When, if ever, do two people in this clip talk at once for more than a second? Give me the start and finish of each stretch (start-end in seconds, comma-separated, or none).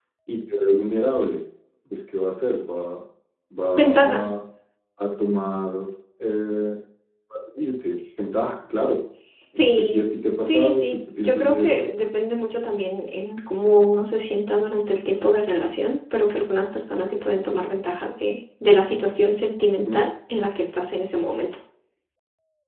10.4-11.8